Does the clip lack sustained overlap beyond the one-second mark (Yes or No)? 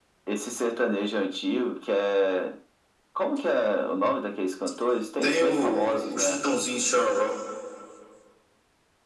No